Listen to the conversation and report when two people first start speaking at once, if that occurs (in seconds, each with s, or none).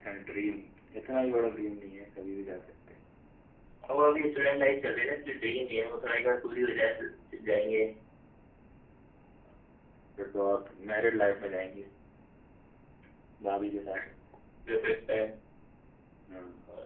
none